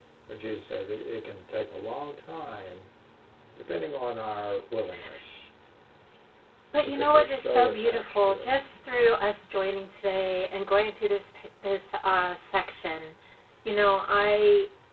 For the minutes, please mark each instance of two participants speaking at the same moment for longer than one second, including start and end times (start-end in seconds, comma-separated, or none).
6.8-8.4